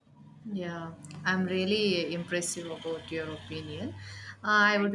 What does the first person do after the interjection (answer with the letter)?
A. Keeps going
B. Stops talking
A